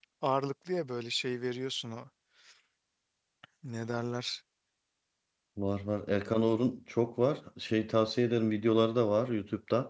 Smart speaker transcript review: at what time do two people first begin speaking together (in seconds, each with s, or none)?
none